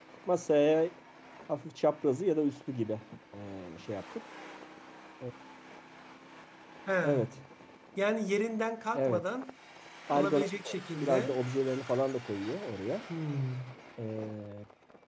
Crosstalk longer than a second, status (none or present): present